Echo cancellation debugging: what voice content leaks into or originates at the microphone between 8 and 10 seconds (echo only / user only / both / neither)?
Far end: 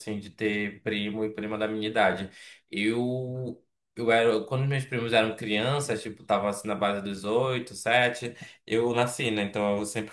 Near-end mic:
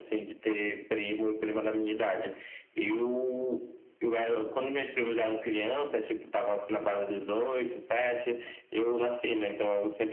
echo only